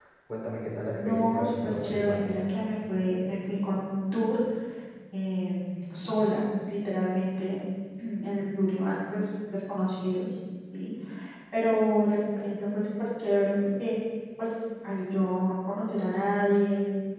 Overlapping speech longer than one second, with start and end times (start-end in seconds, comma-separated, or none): 0.9-2.4